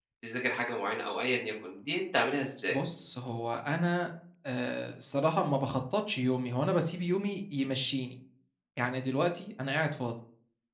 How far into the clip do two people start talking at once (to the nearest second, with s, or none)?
none